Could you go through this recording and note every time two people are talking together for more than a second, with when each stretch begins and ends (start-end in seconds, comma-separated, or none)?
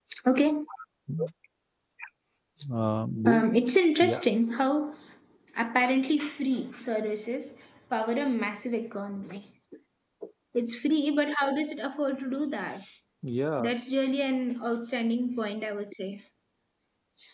none